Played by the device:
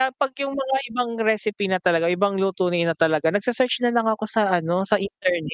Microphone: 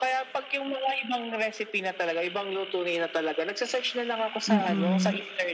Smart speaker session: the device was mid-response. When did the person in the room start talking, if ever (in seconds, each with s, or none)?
4.5 s